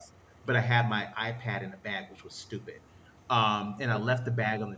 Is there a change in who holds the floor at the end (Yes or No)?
No